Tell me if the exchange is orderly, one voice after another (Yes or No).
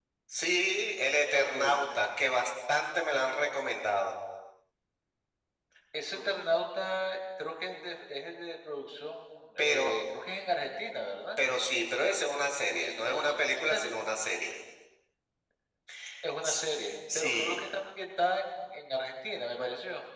No